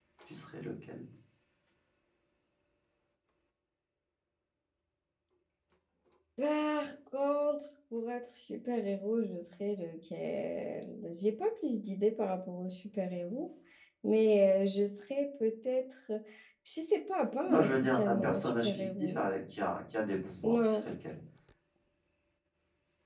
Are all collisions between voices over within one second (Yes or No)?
No